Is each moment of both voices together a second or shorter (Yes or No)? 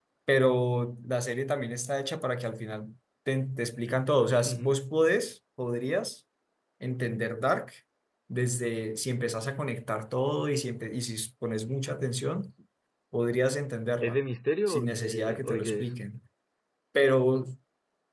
No